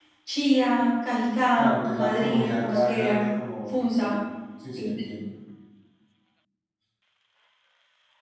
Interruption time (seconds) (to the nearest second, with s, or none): 2 s